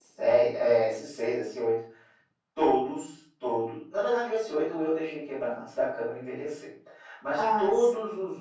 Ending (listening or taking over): listening